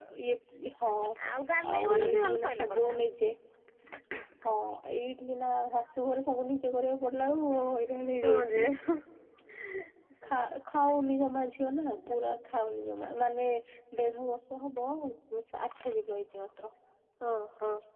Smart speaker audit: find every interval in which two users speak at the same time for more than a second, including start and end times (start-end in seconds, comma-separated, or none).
1.7-2.9